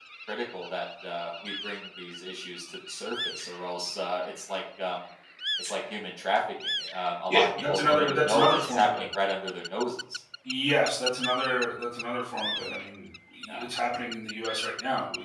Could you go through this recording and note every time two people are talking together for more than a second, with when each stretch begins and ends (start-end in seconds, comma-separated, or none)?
7.3-9.1